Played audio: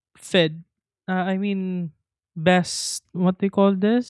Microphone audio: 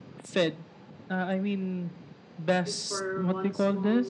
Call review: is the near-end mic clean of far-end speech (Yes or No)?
No